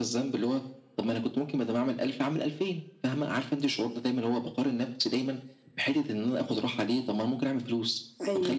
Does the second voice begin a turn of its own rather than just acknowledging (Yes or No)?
No